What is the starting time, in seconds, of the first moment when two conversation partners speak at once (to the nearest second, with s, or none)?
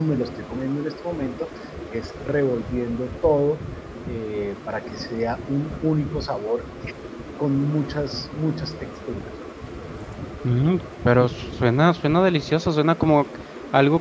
none